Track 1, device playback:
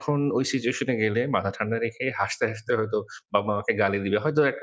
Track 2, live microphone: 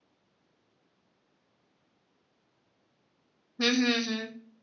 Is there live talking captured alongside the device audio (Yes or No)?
Yes